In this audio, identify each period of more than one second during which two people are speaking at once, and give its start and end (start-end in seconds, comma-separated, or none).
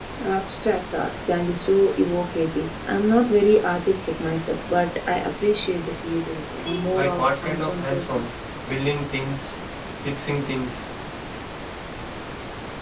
6.9-8.2